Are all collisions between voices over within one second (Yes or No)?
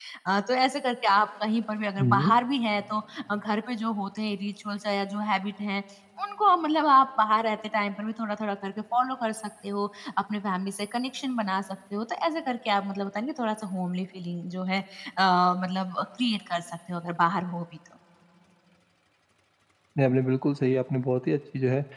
Yes